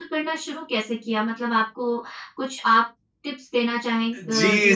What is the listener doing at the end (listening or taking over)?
taking over